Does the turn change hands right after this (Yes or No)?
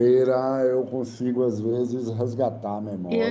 Yes